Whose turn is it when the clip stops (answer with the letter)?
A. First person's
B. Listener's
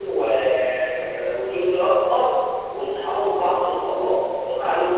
A